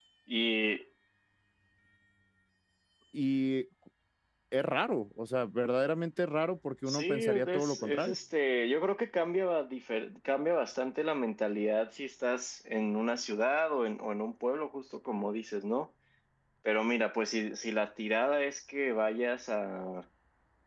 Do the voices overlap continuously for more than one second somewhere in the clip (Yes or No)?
Yes